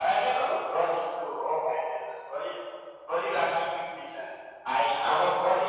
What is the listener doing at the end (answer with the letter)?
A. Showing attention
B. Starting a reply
A